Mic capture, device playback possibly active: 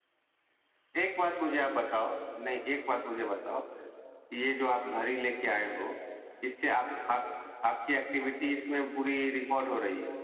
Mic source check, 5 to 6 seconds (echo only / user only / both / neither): user only